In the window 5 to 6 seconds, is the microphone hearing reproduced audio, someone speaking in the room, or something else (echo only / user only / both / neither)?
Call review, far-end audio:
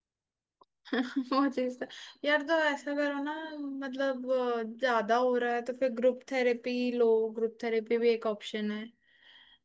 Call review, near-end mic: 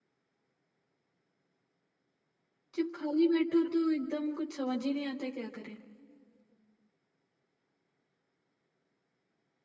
user only